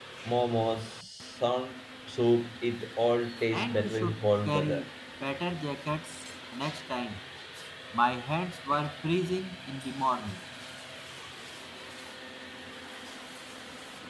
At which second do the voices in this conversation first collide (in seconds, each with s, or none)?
3.5 s